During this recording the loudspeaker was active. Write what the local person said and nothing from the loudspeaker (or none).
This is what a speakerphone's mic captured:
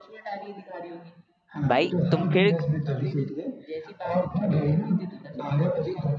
भाई तुम फिर